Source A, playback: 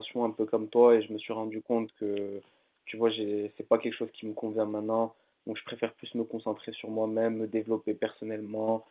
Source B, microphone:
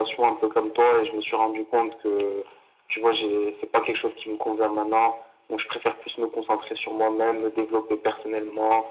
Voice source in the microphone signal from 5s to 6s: echo only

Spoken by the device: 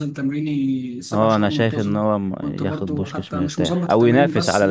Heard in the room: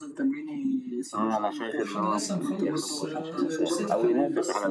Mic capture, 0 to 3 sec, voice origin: both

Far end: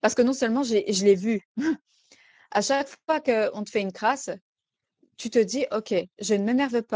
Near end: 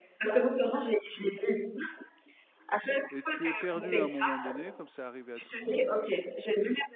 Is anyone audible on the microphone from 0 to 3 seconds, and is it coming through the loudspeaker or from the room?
echo only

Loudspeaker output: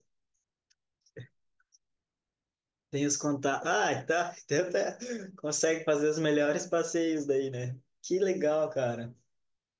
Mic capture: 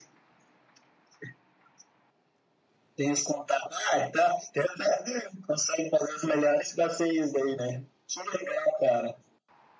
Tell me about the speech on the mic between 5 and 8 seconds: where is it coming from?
echo only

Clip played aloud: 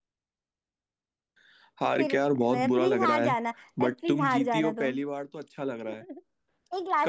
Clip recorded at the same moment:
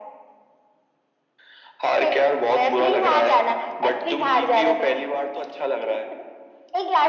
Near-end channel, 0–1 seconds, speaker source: neither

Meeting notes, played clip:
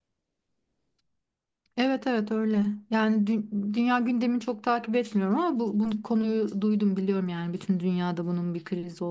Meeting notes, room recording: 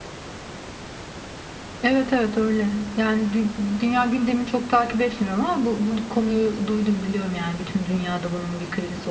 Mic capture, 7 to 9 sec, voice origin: echo only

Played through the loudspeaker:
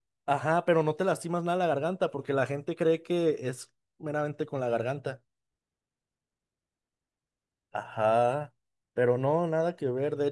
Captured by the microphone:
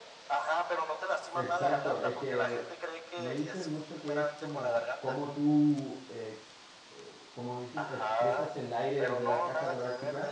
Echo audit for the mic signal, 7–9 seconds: both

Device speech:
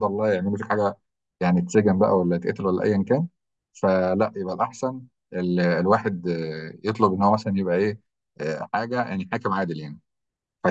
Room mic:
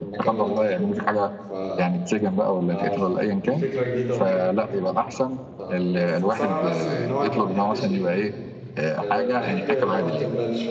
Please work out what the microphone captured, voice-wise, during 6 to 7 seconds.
both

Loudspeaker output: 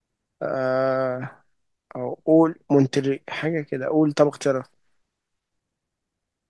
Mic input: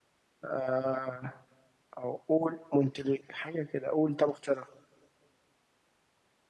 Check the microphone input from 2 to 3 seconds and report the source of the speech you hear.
echo only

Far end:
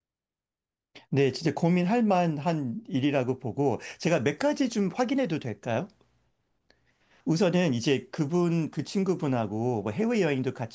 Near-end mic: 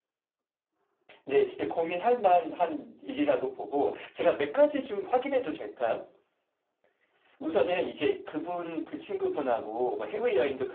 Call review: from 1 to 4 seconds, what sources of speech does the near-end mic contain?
echo only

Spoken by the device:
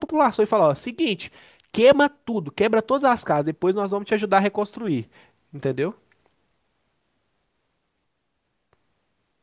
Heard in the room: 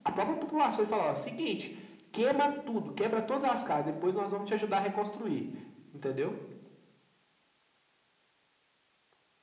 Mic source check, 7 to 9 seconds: neither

